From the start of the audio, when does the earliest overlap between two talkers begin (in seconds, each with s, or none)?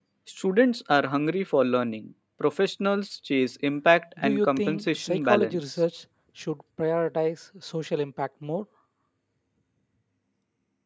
4.2 s